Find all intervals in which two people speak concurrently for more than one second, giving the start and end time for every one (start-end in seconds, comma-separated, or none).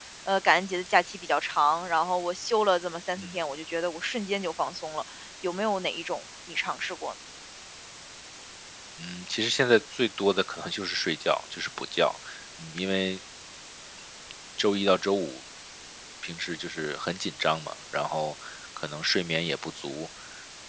none